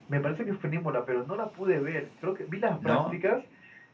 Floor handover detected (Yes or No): No